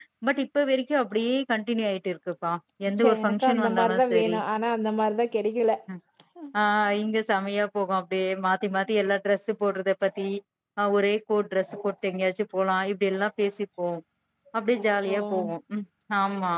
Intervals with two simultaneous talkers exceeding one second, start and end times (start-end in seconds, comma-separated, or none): 3.0-4.4